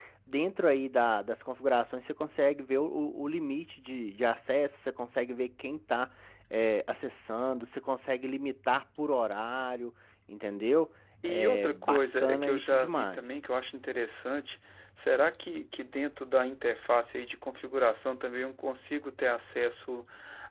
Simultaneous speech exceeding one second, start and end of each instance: 11.2-13.4

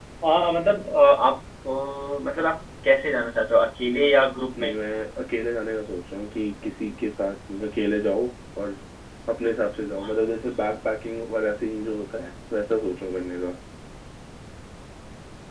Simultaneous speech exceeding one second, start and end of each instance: none

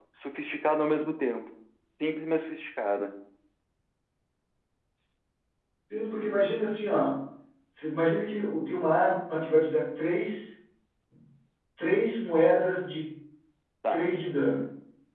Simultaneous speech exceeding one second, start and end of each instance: none

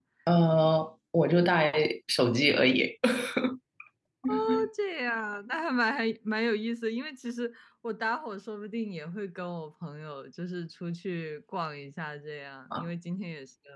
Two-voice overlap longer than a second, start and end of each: none

